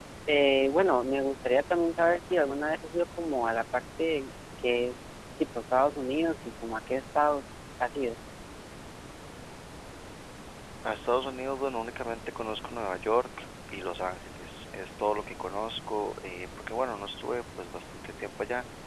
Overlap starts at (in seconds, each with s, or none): none